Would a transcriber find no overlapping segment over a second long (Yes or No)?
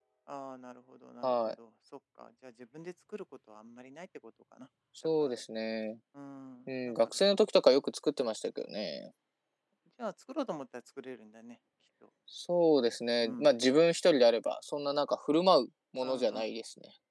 Yes